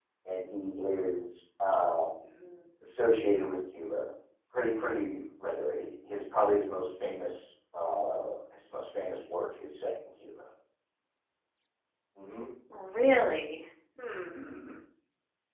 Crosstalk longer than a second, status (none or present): none